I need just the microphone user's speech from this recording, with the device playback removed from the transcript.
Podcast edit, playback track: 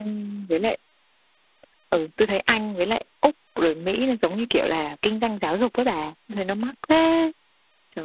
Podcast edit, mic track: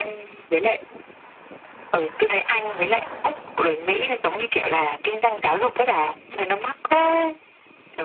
none

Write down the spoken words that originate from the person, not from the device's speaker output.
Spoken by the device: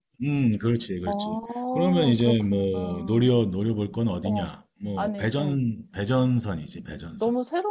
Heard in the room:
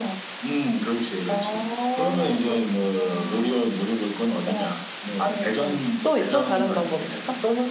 또, 또 다른 방법 있어?

